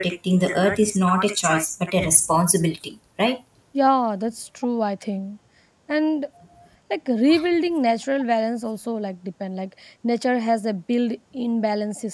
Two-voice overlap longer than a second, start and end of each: none

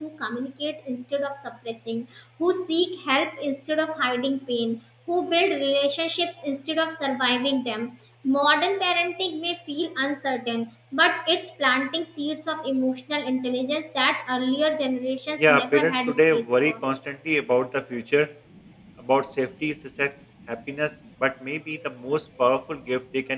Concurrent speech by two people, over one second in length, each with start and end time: 15.4-16.8

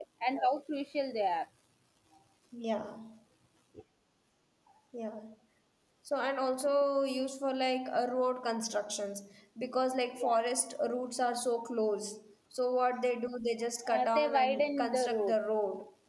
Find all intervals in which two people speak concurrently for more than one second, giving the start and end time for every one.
13.9-15.4

